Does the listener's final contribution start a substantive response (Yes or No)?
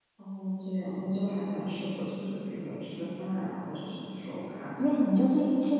Yes